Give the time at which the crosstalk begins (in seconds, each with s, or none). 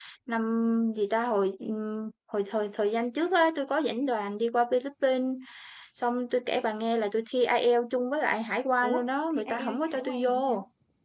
8.8 s